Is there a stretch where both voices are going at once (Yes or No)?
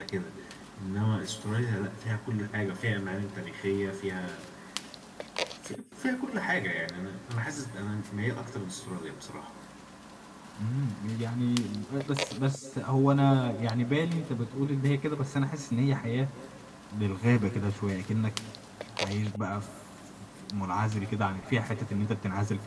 No